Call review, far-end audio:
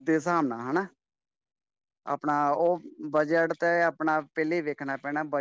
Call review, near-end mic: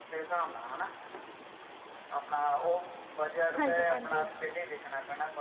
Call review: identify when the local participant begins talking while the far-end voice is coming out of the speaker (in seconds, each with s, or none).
3.6 s